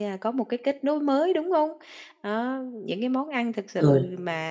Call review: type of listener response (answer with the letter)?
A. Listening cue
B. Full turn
A